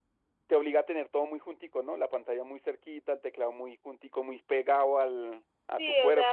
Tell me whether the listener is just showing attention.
No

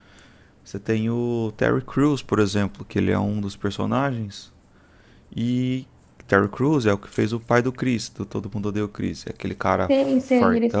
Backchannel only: No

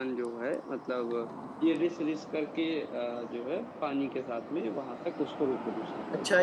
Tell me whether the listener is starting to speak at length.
Yes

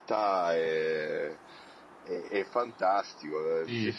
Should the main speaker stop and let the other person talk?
No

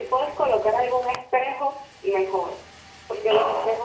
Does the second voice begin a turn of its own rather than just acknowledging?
No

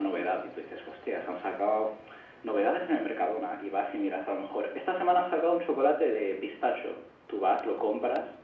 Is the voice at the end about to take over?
No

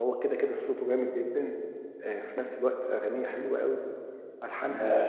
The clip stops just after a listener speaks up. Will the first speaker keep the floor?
Yes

